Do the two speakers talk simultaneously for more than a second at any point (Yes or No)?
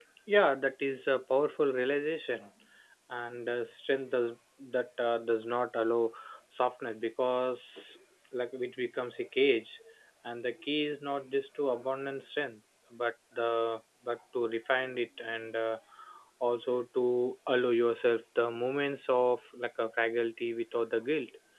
No